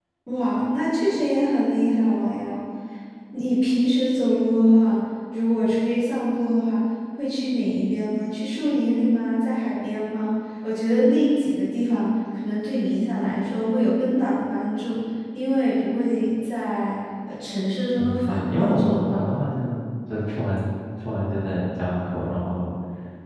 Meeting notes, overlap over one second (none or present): present